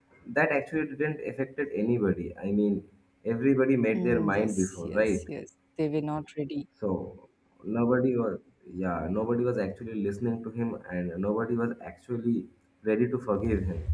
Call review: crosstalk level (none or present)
present